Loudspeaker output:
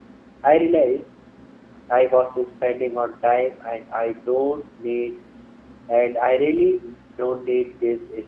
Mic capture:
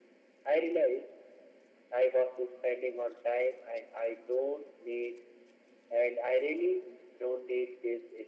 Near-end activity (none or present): none